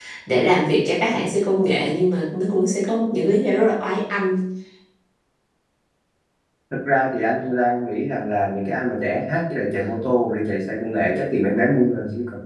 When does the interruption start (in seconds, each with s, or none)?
none